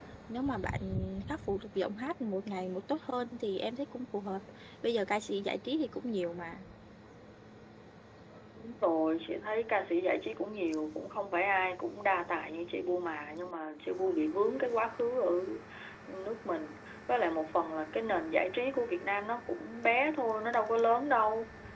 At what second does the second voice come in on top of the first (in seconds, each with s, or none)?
none